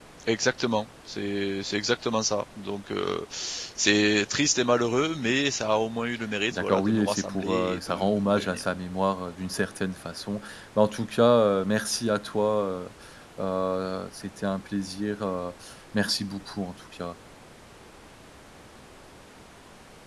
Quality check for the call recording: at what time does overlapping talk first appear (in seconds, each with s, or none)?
6.5 s